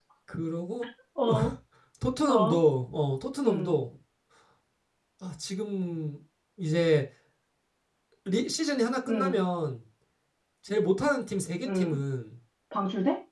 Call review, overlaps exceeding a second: none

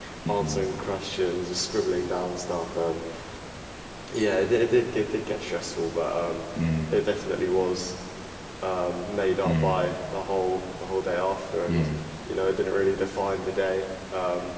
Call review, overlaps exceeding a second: none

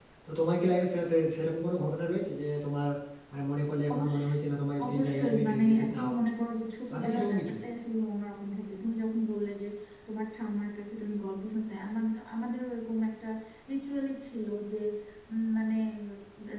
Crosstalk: present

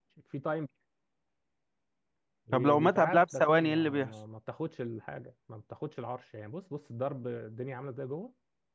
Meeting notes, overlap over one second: present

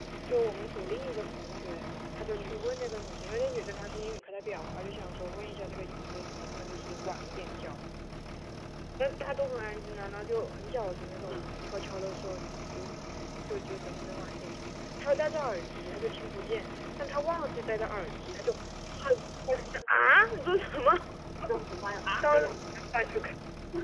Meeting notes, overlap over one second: none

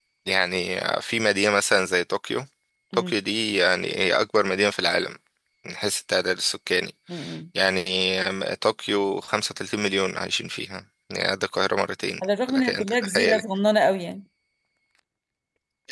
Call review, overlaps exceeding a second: present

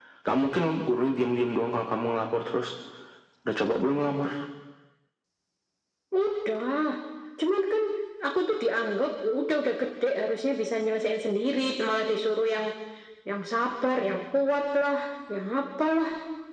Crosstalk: none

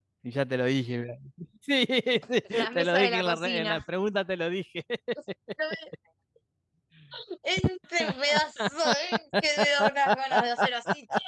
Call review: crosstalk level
present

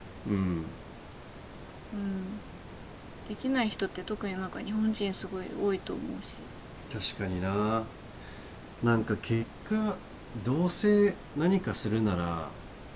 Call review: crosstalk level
none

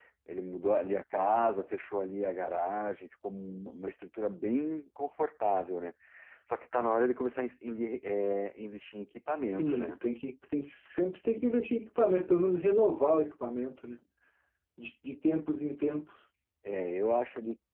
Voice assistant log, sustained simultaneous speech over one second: none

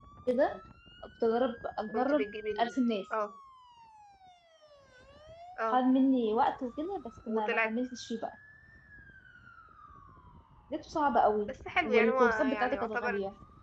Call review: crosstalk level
present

